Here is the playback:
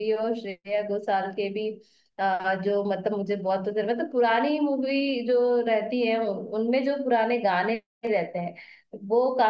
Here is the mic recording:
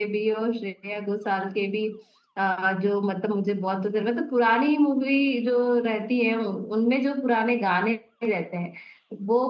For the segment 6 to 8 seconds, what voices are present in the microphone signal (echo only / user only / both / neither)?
echo only